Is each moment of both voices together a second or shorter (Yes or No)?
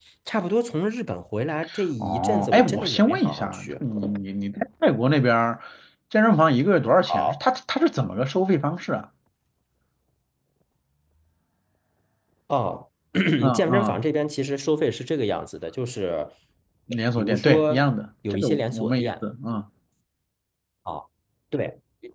No